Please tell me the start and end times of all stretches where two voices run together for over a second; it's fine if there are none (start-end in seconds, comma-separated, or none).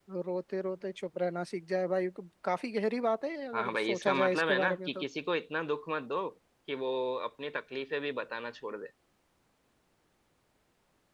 3.5-5.0